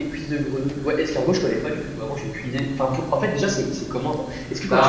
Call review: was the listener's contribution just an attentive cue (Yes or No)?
Yes